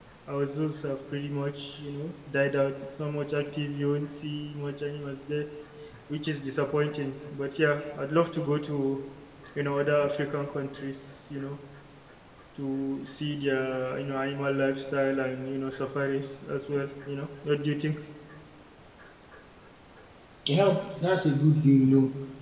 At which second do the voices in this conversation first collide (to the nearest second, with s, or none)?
none